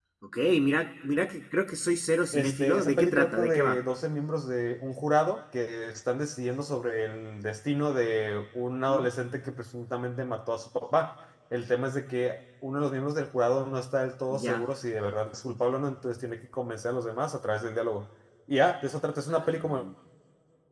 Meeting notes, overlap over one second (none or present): present